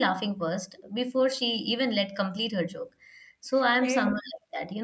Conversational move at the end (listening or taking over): listening